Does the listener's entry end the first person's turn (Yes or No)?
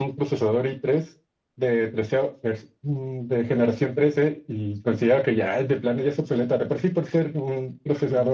No